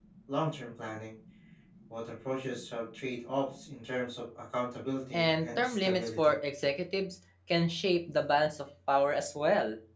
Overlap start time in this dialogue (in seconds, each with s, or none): 5.1 s